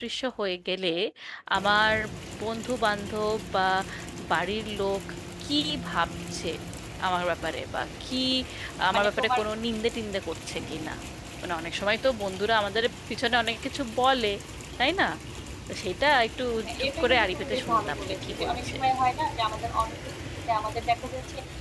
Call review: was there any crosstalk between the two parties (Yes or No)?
Yes